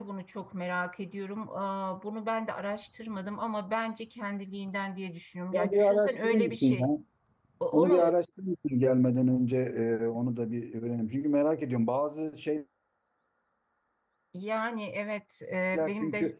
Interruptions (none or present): present